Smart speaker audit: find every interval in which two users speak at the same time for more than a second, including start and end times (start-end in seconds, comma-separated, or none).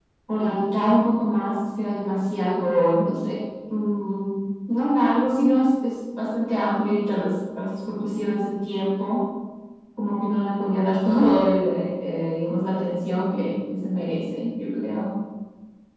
none